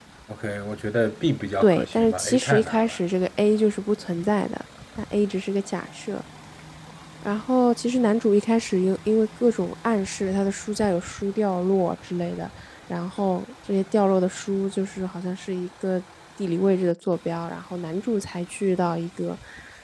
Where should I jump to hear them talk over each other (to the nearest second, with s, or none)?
2 s